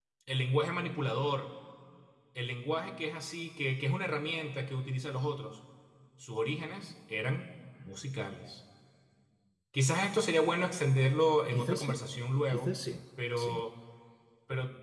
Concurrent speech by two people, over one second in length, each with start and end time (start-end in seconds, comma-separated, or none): none